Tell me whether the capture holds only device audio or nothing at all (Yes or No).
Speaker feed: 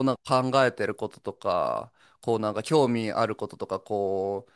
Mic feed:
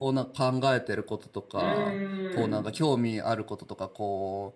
No